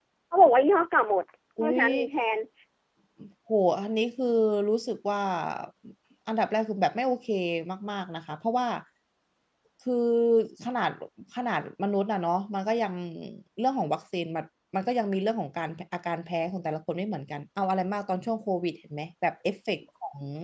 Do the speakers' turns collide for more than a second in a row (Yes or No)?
No